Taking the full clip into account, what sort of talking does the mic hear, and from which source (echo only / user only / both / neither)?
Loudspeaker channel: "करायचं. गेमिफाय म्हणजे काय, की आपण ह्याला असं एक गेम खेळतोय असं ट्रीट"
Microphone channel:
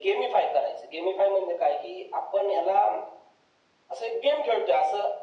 echo only